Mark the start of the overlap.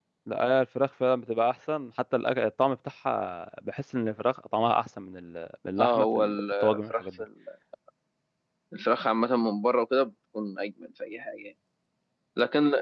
5.8 s

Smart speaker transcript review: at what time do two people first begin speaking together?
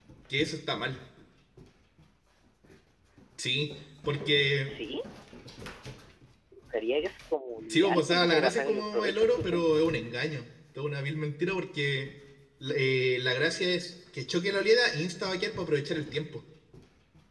7.7 s

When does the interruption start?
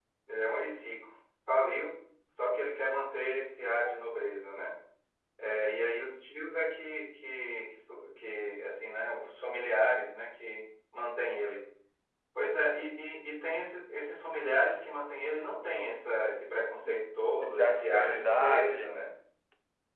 16.9 s

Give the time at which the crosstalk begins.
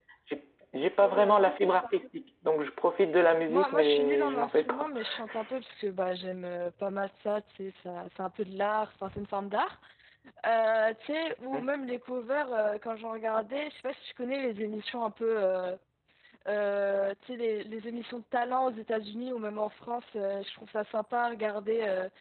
3.5 s

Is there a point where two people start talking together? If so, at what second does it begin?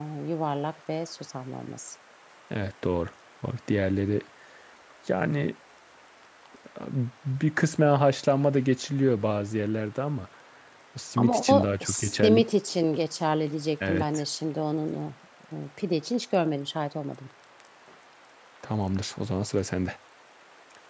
11.2 s

